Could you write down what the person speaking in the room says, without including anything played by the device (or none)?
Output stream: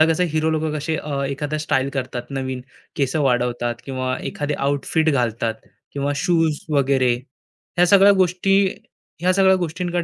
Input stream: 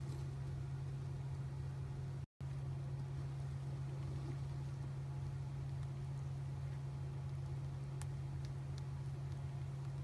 none